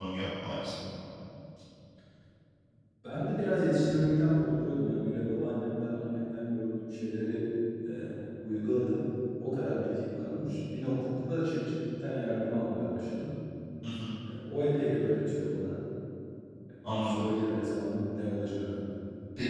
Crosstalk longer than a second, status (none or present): none